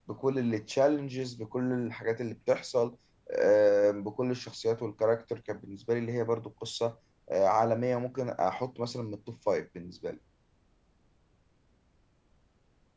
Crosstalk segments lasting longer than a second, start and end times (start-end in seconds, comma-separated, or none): none